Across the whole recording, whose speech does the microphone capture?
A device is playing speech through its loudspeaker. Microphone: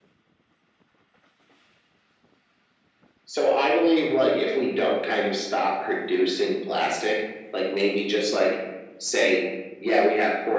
echo only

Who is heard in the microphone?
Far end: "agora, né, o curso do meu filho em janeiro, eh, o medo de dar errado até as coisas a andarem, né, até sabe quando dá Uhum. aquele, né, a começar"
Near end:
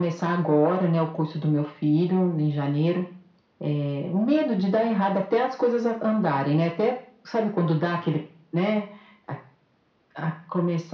echo only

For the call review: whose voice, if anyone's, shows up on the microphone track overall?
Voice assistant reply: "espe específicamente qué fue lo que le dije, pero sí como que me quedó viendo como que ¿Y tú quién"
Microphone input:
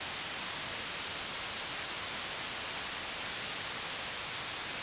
neither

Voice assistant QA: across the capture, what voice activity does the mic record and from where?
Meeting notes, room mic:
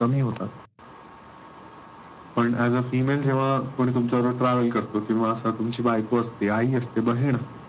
echo only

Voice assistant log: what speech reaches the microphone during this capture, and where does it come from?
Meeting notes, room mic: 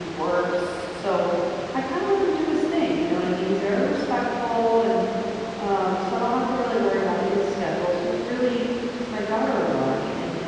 user only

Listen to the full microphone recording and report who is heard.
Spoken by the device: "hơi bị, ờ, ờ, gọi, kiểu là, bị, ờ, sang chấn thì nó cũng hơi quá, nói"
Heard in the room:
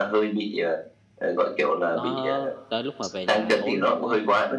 both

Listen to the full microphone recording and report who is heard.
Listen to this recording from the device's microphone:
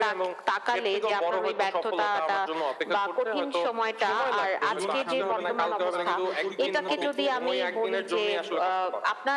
both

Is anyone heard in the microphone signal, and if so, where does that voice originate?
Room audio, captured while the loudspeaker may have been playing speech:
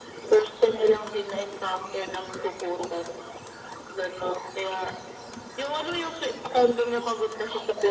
echo only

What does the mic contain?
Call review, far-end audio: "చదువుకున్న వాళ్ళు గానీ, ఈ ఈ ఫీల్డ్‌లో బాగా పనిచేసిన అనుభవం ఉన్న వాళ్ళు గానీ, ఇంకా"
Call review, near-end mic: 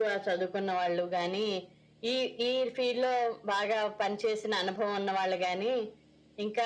echo only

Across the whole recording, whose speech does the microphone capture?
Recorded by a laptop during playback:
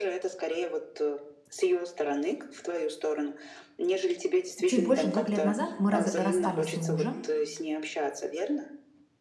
both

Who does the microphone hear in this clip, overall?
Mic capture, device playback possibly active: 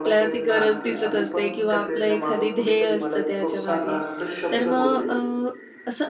both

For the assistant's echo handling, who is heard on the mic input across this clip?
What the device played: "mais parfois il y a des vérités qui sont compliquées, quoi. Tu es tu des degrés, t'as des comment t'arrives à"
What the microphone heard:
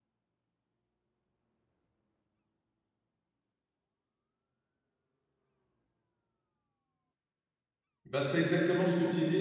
user only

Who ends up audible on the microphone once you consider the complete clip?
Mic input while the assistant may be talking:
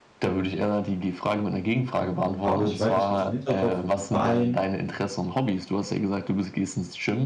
both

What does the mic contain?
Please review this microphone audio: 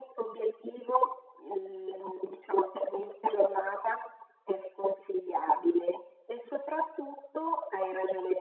echo only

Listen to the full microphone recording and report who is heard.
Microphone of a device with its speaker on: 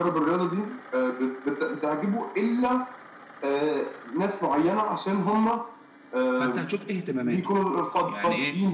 both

